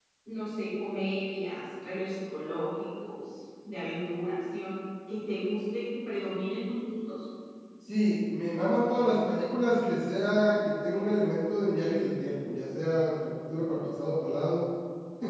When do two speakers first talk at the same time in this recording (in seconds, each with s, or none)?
none